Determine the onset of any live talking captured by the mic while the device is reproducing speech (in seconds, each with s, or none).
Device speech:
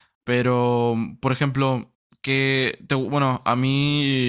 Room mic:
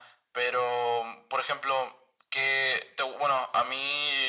none